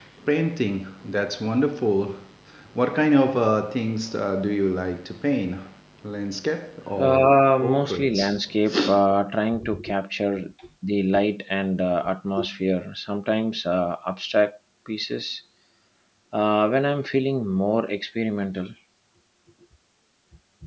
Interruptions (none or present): present